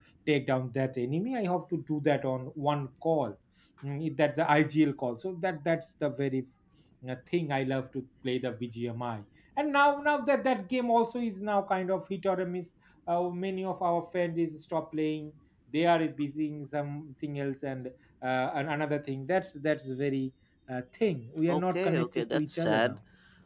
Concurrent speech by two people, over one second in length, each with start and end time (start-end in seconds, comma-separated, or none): 21.5-23.0